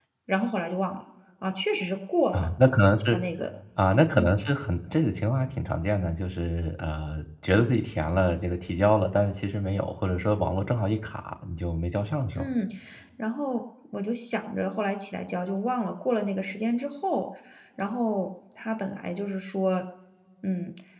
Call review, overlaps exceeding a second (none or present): none